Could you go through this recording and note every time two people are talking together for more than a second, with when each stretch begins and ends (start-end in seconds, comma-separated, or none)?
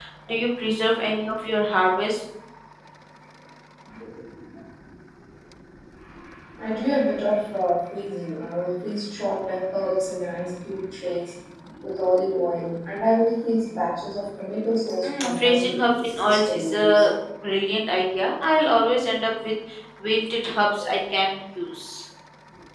15.0-17.1